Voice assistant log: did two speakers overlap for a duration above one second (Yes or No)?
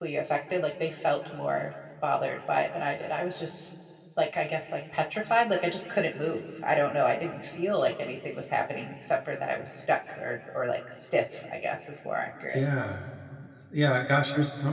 No